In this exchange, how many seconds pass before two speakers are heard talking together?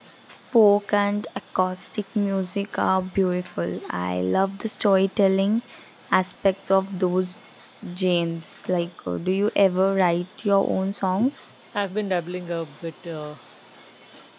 none

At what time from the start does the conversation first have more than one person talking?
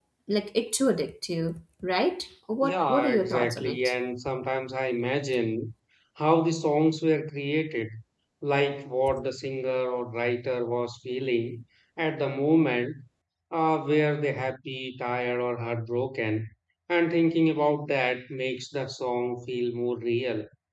2.6 s

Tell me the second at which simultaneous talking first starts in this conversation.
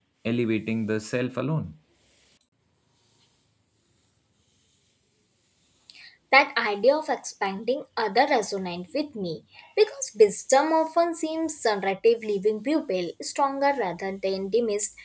none

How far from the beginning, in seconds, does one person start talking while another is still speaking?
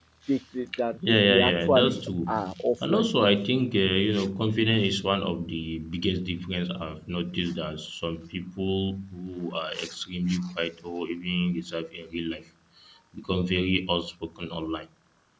1.0 s

